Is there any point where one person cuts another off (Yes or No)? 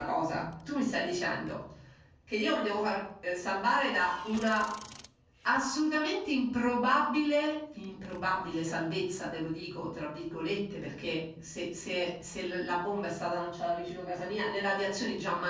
No